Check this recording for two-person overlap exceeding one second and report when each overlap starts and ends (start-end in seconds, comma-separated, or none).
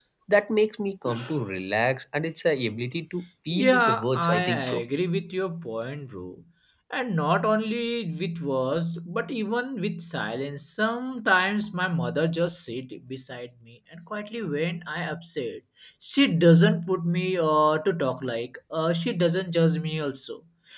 3.5-4.8